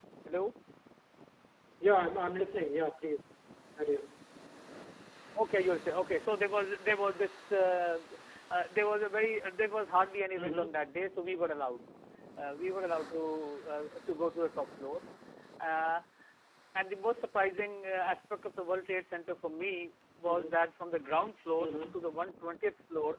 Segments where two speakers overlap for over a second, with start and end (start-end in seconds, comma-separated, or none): none